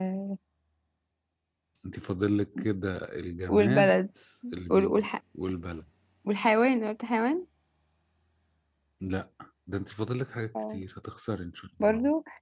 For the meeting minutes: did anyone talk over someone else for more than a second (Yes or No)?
No